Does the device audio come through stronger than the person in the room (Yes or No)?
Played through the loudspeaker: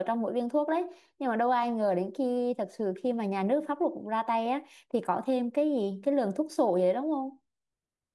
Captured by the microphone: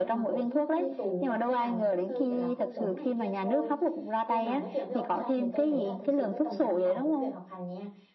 Yes